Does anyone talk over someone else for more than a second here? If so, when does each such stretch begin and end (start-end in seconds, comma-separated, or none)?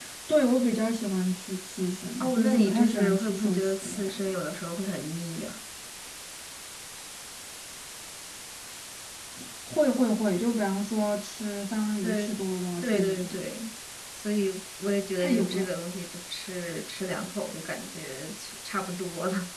2.2-4.3